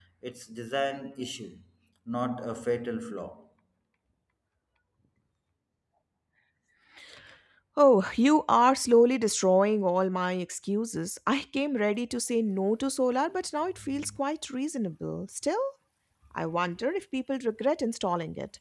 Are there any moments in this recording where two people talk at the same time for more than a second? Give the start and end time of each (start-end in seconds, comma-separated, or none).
none